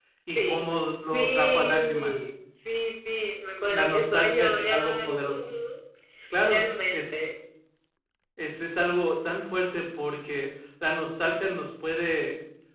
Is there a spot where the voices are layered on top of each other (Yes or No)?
Yes